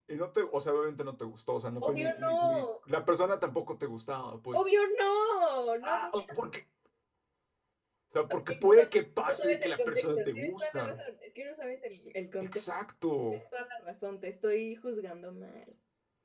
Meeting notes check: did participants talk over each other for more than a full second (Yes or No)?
Yes